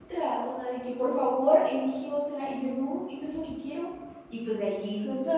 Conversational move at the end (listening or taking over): taking over